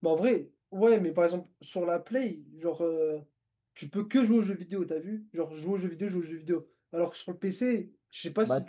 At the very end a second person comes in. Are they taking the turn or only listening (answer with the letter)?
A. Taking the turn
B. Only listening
B